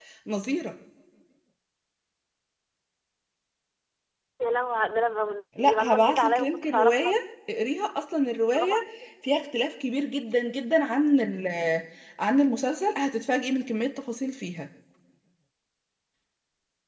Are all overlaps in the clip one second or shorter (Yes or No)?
No